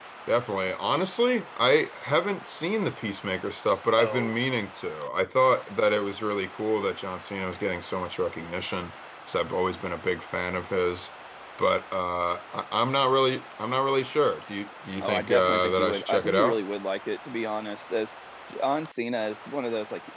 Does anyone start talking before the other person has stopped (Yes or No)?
Yes